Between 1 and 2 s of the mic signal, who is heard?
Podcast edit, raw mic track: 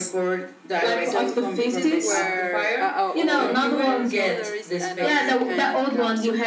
both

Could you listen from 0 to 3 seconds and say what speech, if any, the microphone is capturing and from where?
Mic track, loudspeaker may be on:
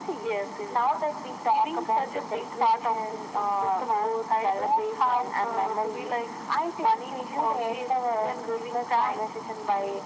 echo only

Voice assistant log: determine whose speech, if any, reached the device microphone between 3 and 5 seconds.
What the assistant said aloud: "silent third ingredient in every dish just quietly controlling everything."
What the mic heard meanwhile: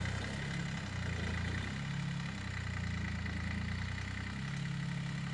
neither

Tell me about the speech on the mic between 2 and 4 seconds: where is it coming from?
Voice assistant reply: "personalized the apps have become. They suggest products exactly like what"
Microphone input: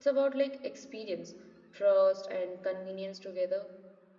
user only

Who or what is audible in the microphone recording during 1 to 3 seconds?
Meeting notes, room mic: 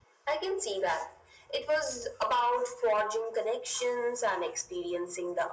echo only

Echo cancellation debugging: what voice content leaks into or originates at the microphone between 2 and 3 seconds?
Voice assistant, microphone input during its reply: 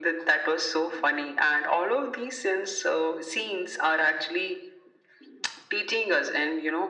echo only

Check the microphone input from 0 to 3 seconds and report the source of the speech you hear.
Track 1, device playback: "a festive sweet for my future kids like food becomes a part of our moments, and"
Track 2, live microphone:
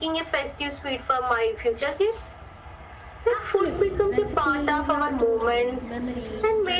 echo only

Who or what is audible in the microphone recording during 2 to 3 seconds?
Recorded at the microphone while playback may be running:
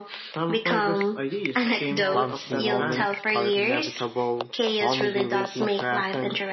both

